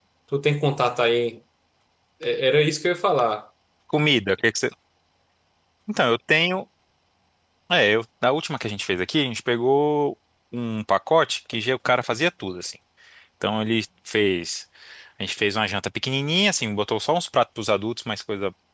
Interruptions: none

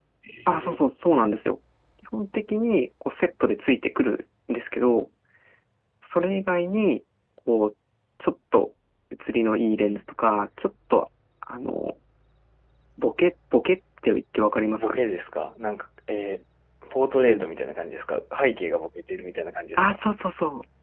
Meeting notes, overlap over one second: none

